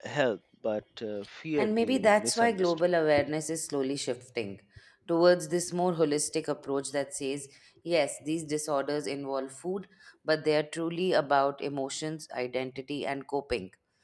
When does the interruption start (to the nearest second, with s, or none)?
2 s